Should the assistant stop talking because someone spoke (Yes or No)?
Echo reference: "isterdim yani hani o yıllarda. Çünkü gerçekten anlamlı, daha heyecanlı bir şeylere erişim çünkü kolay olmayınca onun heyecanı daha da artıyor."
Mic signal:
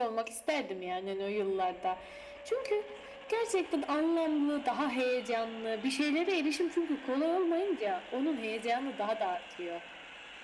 No